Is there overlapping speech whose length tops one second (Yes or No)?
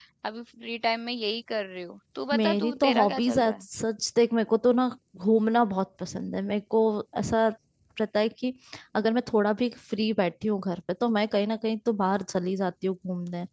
Yes